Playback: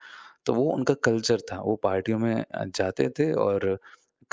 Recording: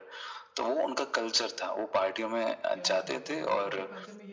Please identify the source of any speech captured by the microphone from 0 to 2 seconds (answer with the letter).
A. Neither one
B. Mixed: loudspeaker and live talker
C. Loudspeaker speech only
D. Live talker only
C